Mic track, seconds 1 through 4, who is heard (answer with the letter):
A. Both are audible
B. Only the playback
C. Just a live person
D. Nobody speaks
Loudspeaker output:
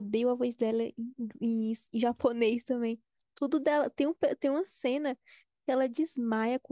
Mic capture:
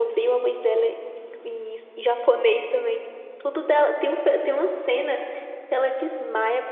B